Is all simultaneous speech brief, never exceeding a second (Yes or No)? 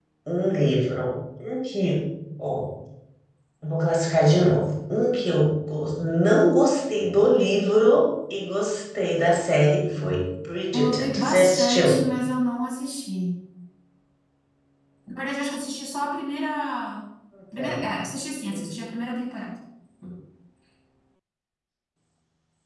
No